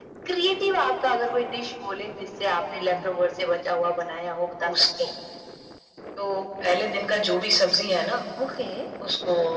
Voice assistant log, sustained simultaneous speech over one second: none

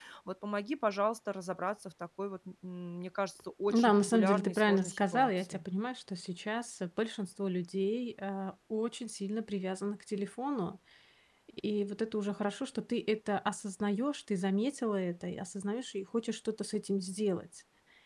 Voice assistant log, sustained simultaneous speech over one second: present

